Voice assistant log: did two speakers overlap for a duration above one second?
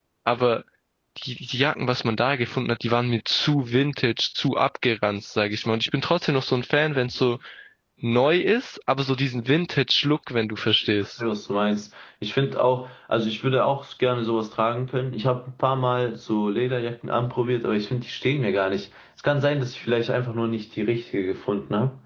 No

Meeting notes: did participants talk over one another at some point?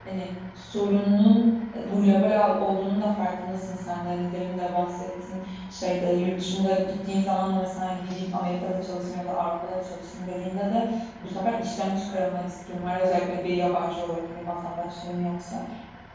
No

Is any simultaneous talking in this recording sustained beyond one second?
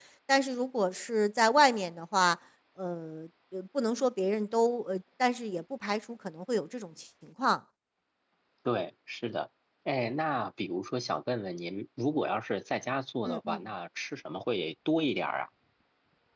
No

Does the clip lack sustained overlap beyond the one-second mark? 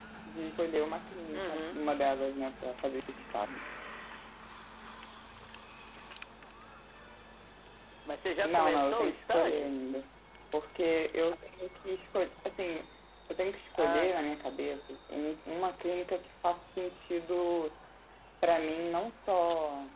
No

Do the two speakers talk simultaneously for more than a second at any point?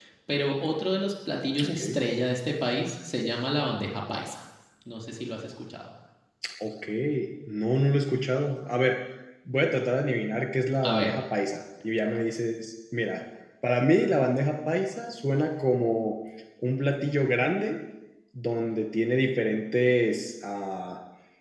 No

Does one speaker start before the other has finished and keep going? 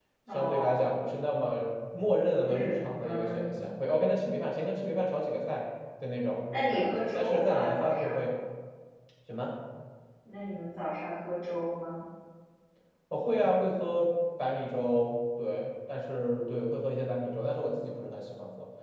Yes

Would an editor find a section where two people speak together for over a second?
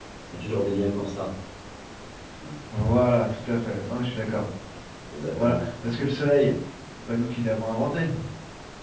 No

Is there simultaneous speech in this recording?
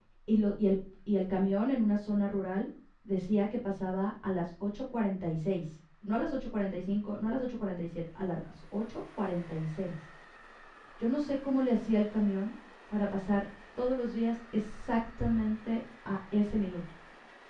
No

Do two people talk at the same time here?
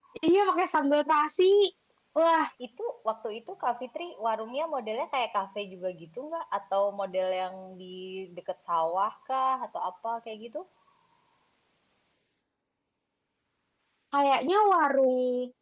No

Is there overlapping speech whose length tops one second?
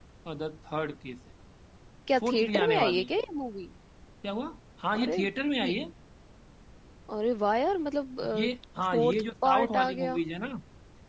Yes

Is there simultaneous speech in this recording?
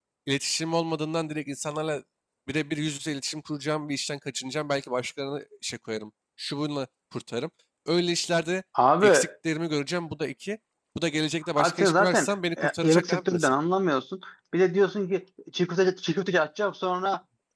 Yes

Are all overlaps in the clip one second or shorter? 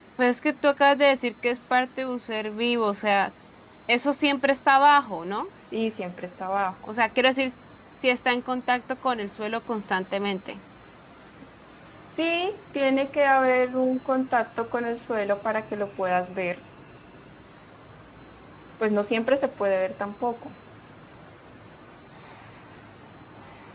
Yes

